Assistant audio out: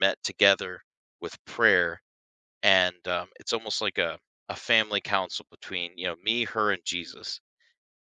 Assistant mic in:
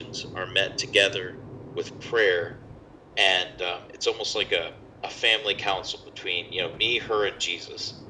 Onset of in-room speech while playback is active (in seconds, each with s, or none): none